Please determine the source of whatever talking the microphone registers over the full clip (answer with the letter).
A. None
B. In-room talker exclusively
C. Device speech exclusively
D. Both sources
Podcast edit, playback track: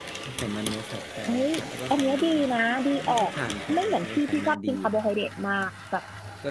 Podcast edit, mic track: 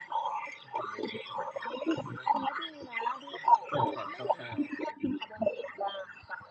D